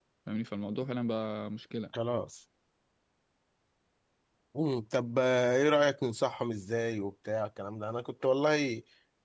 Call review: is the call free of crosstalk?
Yes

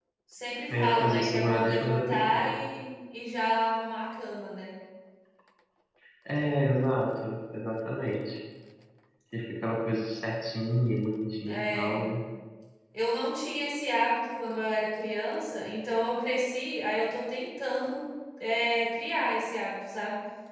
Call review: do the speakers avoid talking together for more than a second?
No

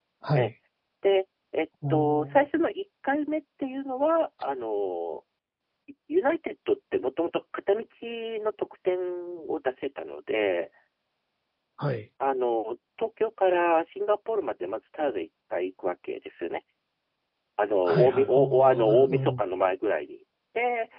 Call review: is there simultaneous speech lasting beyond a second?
Yes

